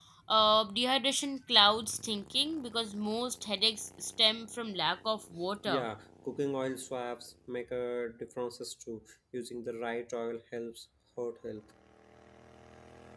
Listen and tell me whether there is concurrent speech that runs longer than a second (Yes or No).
No